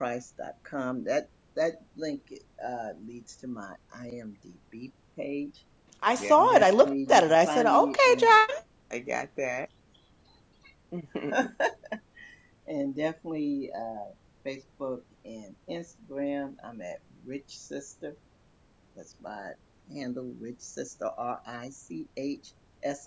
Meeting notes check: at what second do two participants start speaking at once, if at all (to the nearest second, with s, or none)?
6 s